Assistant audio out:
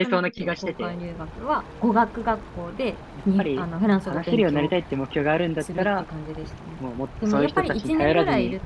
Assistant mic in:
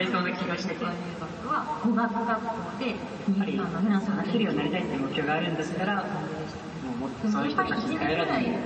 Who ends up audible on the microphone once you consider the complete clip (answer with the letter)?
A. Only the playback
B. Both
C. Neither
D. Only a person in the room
B